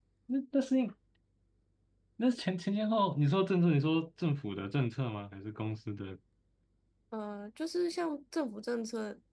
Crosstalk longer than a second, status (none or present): none